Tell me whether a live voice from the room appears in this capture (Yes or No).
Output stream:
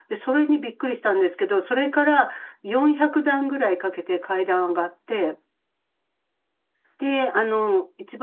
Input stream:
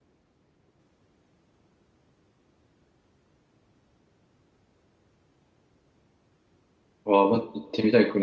Yes